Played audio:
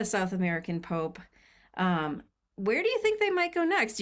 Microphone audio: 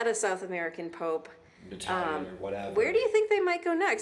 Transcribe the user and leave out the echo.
Italian or whatever,

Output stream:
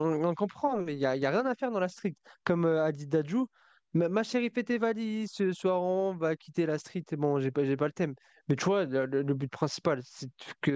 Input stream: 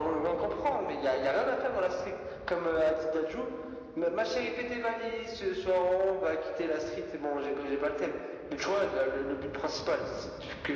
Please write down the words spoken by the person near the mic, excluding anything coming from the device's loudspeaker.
none

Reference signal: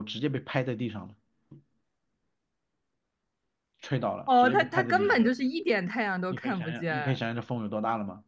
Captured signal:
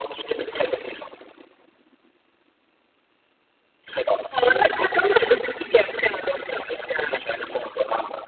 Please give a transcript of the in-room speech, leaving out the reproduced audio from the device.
none

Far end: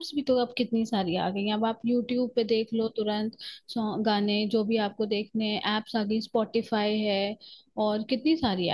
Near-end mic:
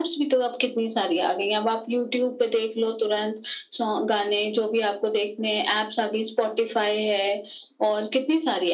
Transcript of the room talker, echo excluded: none

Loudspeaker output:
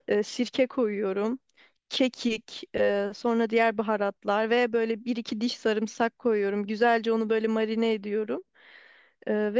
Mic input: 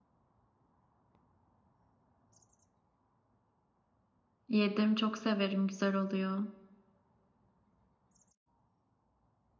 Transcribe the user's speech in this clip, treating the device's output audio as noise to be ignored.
yedim çok severim güzel oluyor.

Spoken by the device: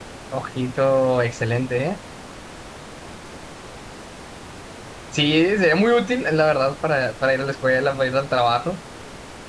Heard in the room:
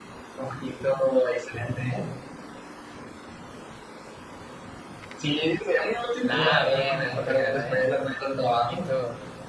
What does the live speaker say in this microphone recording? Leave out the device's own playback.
La A, bien, es la primera, ¿eh? Ojito.

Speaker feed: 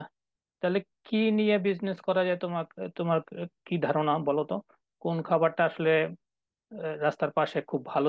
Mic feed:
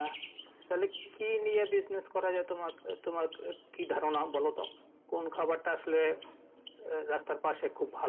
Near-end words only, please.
none

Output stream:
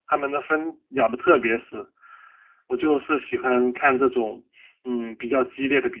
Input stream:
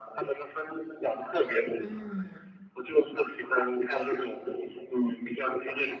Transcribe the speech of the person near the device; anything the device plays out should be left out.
嗯，

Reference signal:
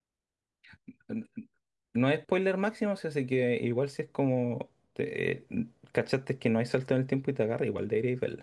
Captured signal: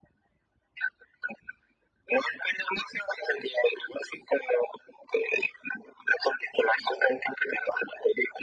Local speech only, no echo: none

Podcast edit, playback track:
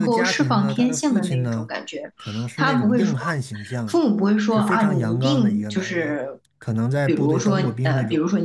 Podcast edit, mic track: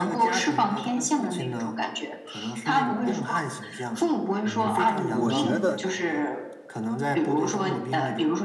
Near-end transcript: 嗯，我觉得

